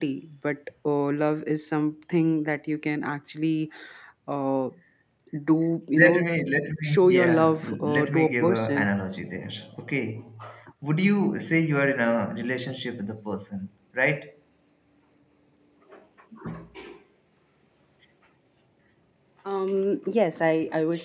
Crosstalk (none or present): present